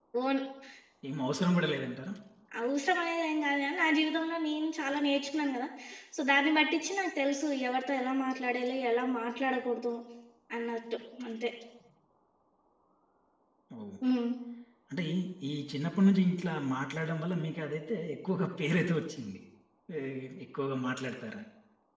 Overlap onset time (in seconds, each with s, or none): none